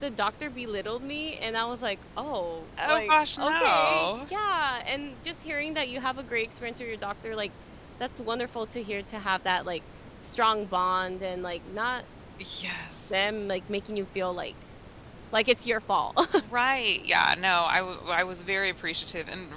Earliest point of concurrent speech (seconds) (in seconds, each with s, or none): 2.8 s